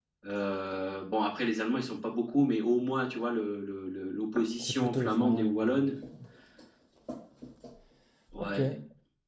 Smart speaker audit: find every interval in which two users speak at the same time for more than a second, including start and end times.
4.6-6.0

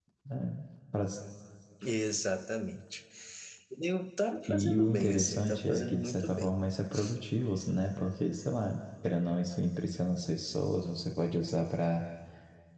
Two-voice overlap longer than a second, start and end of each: 4.5-6.6

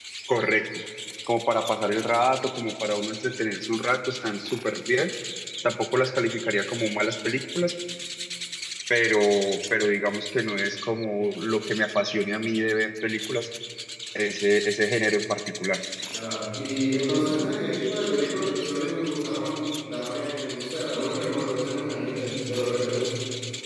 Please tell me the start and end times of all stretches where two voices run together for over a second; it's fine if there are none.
none

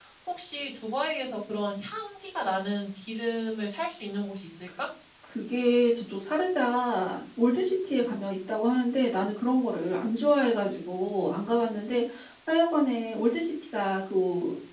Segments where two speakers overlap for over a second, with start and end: none

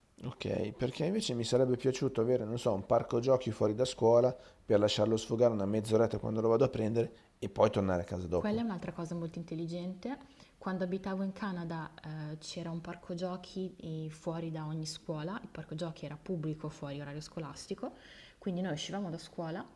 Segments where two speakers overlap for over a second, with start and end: none

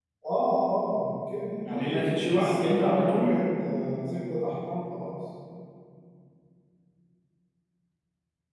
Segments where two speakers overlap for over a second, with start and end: 1.6-3.4

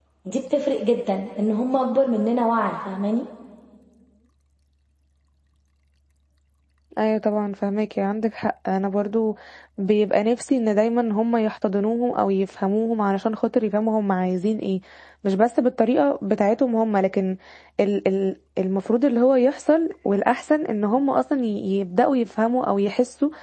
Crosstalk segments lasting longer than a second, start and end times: none

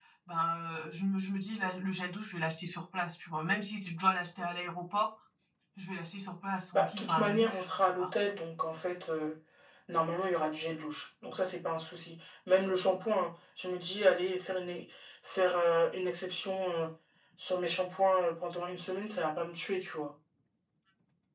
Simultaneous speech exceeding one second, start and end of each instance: 6.7-8.3

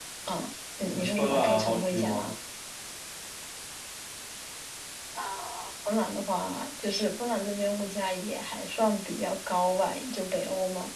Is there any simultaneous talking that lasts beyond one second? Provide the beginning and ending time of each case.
0.9-2.3

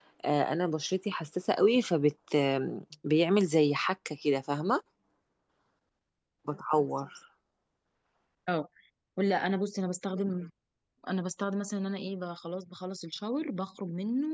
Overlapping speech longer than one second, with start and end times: none

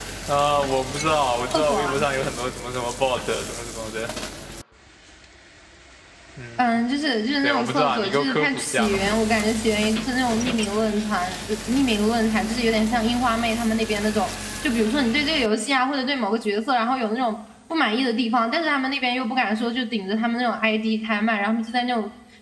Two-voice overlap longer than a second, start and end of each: 7.4-9.1

